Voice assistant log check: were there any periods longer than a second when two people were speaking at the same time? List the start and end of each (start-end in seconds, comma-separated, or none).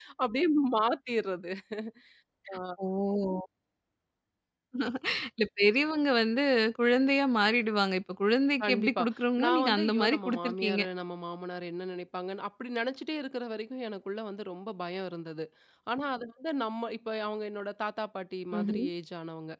9.4-10.8